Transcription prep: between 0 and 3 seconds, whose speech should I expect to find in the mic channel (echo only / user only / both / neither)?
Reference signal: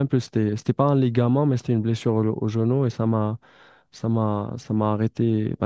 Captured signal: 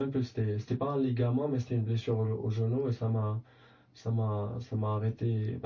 echo only